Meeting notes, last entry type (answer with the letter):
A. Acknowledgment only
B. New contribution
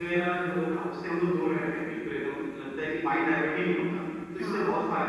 A